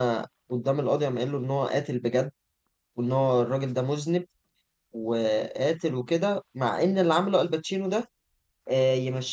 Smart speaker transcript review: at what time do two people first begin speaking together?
none

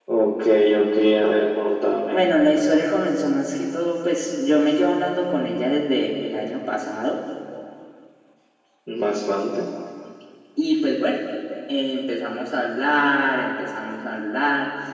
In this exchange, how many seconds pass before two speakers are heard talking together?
none

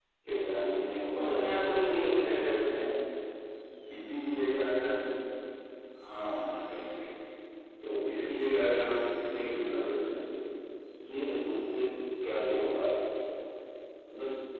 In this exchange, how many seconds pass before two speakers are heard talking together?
1.2 s

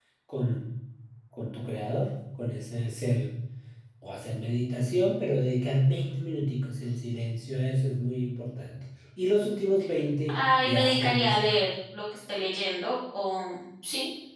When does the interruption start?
10.3 s

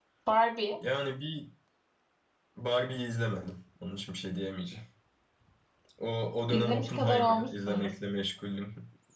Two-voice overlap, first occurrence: 6.5 s

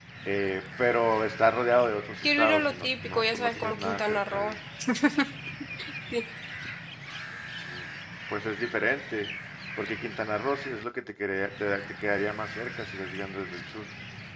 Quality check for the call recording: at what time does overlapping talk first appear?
2.2 s

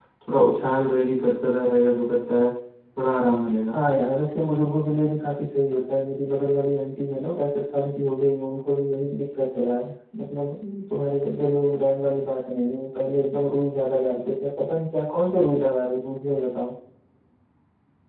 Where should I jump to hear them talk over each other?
none

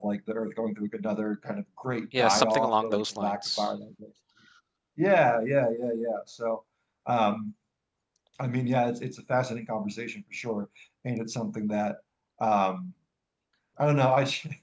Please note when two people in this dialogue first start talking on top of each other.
2.1 s

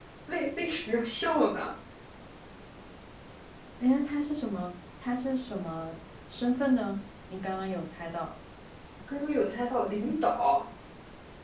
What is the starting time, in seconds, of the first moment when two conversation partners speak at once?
none

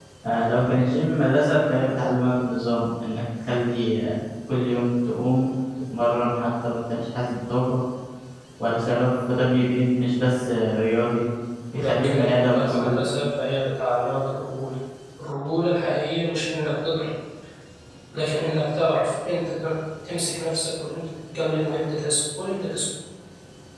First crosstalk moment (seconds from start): 11.7 s

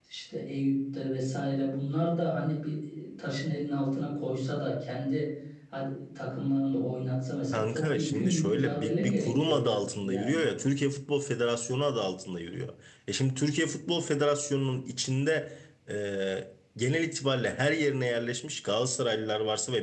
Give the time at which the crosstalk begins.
7.5 s

